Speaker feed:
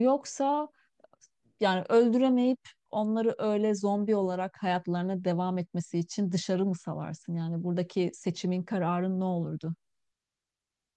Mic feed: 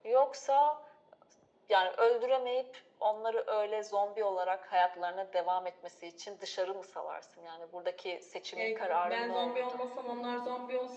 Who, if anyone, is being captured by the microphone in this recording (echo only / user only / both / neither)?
both